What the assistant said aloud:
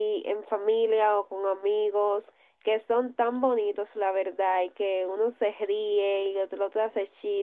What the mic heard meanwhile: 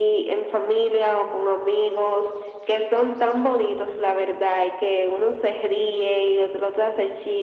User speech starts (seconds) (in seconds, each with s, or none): none